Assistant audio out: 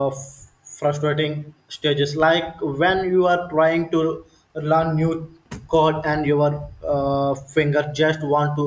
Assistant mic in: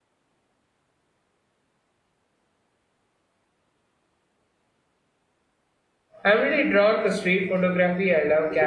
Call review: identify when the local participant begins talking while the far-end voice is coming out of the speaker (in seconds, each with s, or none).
6.2 s